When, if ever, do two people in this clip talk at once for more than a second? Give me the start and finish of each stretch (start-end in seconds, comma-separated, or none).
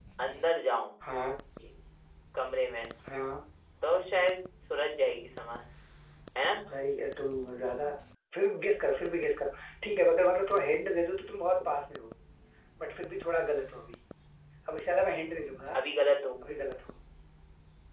none